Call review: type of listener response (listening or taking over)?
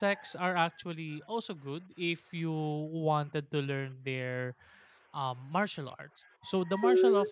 listening